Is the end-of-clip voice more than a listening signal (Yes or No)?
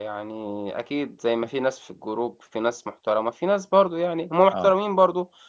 No